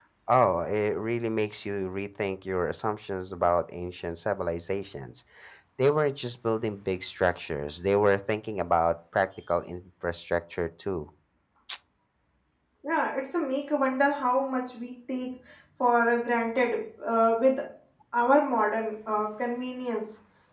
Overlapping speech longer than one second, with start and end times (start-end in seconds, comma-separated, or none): none